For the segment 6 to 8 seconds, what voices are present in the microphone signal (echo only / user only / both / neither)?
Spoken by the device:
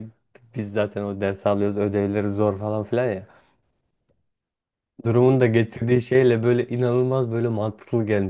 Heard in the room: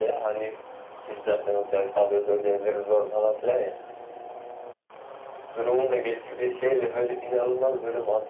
echo only